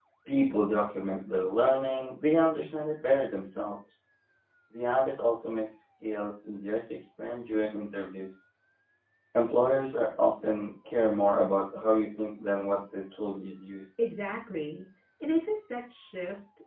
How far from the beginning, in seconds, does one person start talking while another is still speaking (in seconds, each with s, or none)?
none